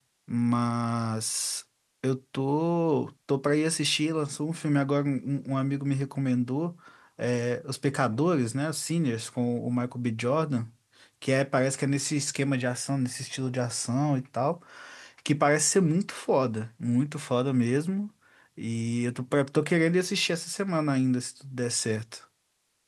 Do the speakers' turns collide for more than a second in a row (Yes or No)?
No